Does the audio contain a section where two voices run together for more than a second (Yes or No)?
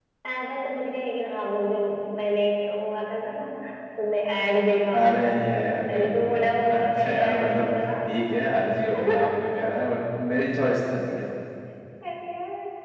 Yes